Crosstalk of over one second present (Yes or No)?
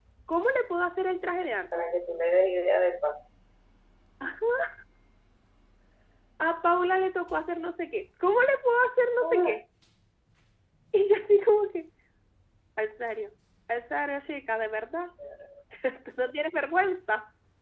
No